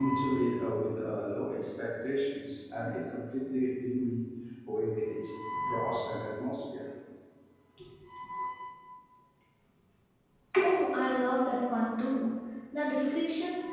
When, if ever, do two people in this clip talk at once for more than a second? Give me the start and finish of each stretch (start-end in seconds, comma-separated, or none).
none